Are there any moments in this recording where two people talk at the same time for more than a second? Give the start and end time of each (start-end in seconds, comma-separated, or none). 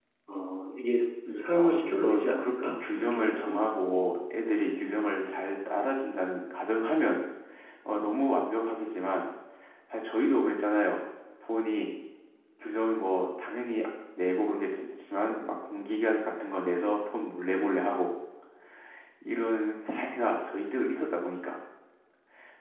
1.5-3.6